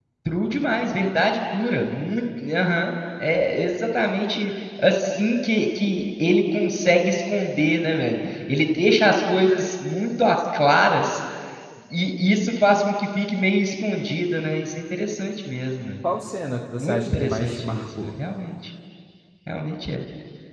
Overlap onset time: 16.8 s

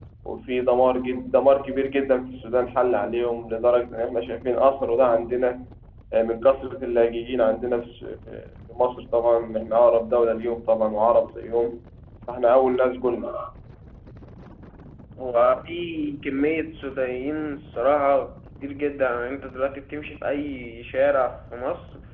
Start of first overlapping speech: none

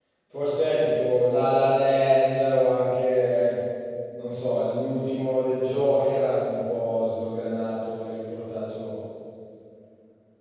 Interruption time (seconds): none

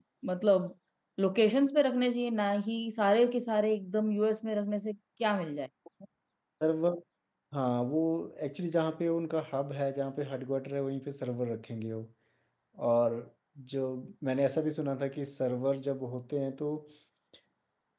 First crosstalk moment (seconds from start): none

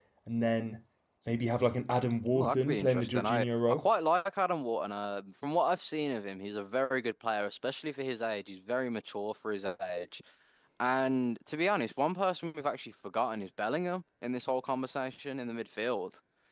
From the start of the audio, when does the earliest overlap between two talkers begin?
2.3 s

